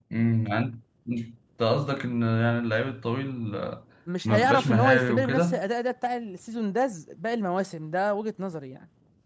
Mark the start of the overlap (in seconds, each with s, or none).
4.2 s